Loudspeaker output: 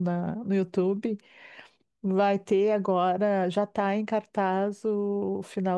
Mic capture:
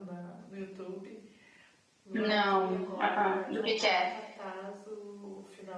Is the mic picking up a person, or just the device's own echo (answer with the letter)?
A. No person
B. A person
B